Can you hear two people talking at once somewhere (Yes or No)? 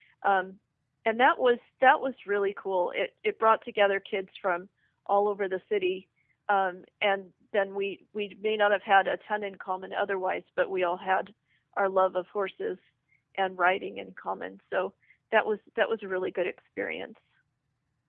No